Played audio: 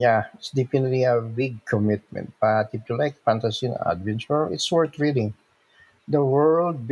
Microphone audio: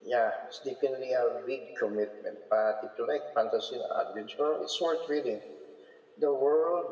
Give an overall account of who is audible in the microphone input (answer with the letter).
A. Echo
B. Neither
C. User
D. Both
A